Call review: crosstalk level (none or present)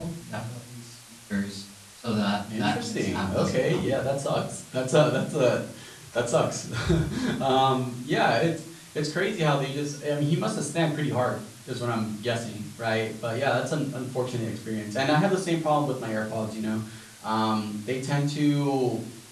present